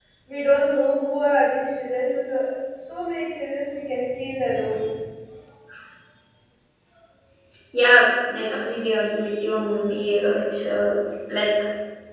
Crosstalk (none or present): none